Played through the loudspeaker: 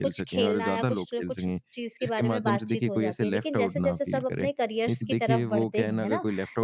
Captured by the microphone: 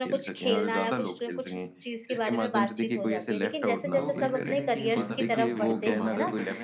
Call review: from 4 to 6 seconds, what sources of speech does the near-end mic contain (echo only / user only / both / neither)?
both